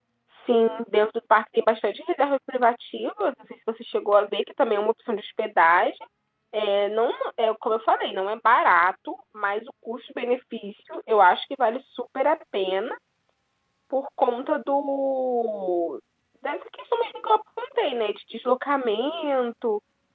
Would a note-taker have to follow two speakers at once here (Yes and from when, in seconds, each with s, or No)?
No